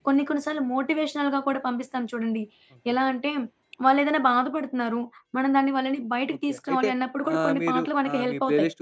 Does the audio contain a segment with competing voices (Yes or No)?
Yes